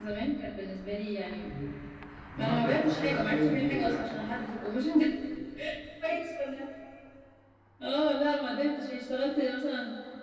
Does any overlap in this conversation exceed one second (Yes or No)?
Yes